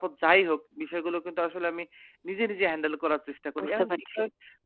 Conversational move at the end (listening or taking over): listening